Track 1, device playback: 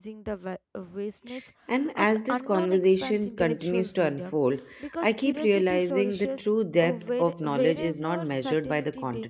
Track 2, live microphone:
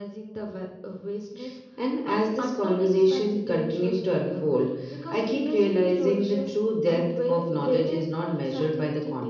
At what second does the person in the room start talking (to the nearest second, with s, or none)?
none